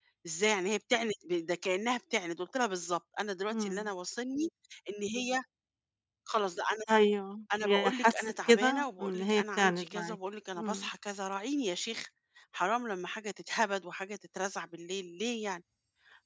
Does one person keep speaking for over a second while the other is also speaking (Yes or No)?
Yes